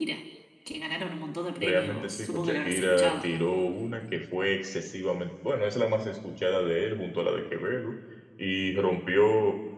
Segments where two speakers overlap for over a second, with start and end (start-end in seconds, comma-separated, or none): 1.6-3.3